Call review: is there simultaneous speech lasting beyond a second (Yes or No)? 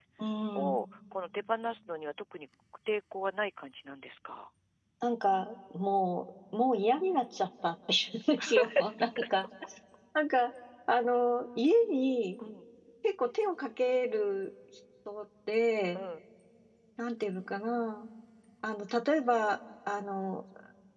No